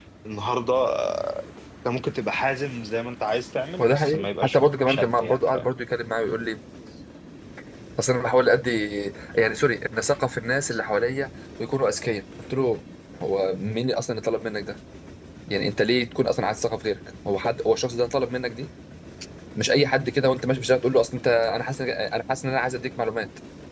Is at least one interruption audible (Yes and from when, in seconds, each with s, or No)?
Yes, from 3.8 s